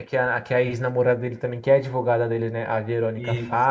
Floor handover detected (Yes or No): No